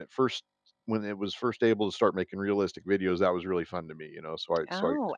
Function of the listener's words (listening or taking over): taking over